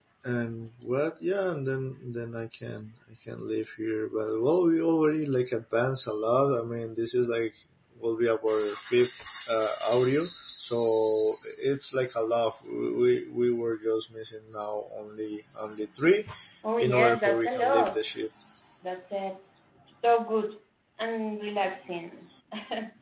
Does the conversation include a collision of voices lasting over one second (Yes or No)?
Yes